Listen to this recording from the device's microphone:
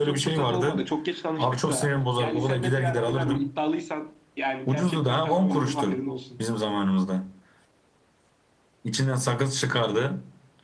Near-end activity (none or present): none